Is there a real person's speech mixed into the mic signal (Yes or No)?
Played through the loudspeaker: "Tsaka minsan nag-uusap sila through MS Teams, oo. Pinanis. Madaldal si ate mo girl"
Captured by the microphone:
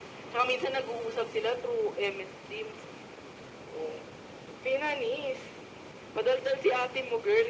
No